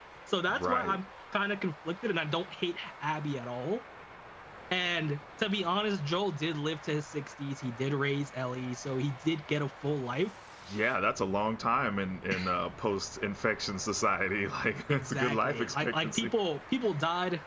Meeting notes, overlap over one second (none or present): present